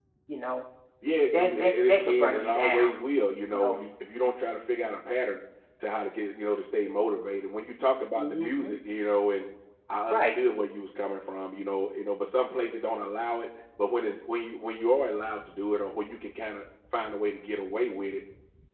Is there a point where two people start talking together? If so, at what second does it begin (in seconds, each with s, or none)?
1.3 s